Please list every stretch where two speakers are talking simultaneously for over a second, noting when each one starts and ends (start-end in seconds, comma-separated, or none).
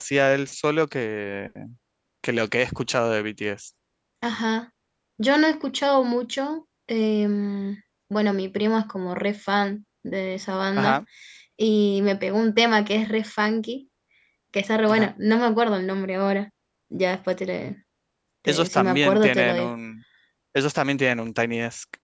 18.5-19.7